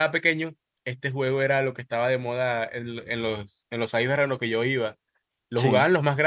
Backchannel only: Yes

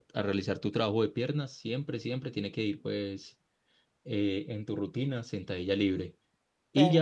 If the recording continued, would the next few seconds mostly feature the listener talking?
No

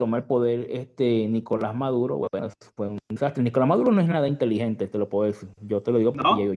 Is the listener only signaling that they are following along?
Yes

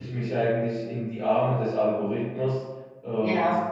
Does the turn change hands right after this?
No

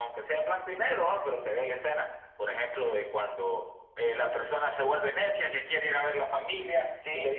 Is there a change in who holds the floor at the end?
No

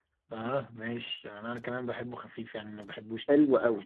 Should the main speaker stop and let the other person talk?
Yes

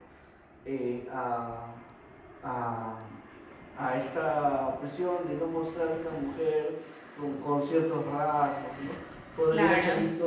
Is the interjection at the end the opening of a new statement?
No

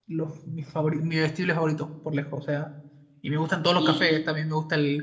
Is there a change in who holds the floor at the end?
No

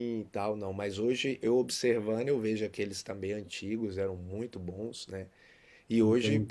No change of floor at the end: Yes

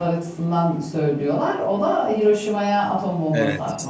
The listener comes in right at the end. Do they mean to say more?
Yes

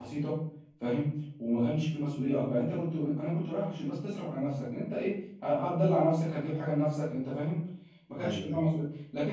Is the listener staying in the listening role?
Yes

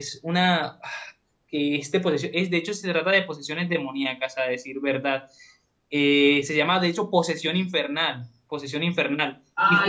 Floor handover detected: Yes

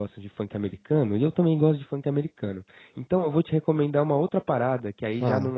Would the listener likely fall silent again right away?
Yes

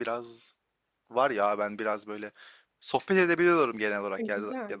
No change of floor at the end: Yes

